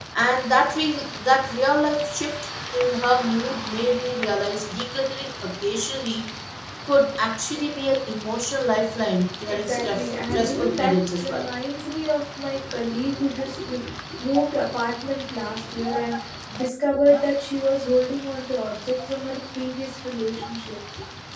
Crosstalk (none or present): present